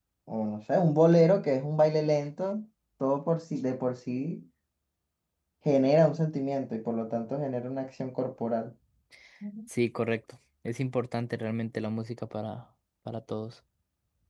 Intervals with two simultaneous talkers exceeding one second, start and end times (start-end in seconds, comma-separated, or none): none